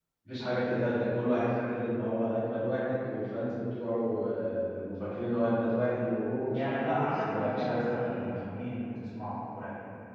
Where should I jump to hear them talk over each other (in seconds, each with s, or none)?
6.5 s